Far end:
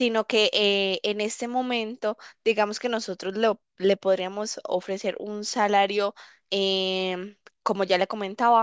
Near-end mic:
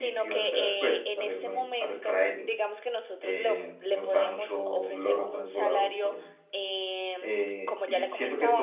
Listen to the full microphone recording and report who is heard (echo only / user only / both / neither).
both